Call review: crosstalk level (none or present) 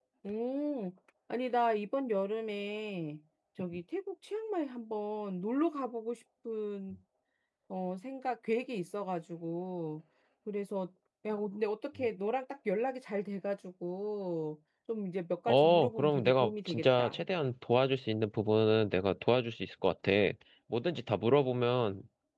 present